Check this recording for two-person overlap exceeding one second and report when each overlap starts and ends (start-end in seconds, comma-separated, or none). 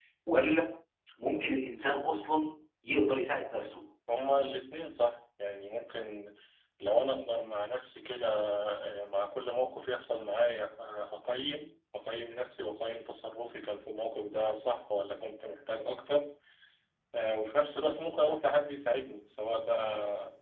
none